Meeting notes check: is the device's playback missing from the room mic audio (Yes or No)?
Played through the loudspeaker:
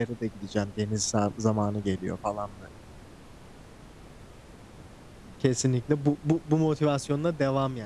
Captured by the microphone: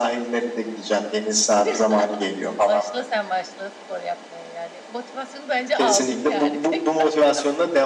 No